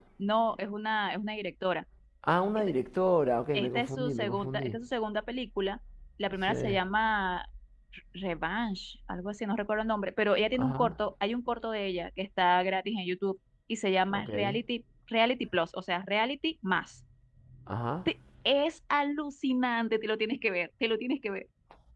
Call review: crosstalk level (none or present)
present